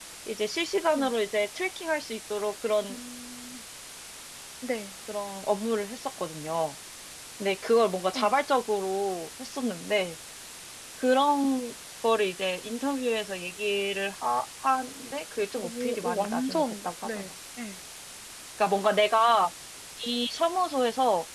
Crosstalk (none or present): present